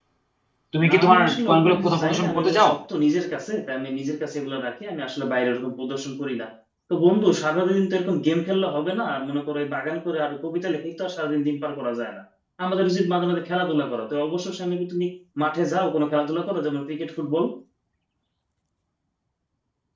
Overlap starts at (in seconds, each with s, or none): 0.9 s